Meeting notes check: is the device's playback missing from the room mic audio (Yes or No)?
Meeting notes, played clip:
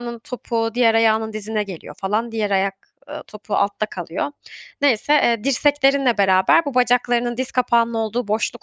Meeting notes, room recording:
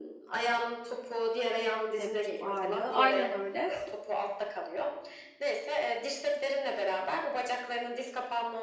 No